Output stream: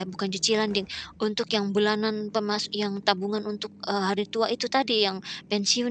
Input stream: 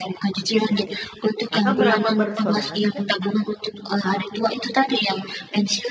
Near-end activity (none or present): present